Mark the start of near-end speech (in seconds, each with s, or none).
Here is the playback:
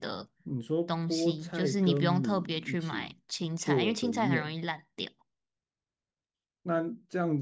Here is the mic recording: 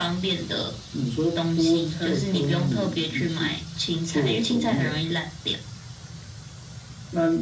none